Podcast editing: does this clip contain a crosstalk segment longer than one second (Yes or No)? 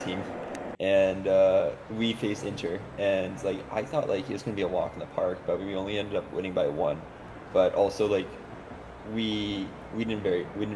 No